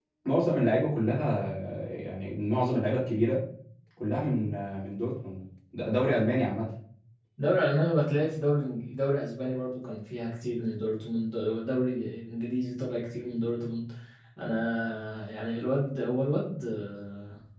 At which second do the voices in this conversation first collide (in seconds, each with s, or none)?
none